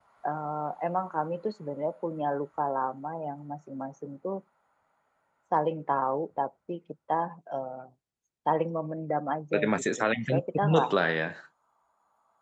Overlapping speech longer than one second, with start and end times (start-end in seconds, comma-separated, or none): 9.5-10.9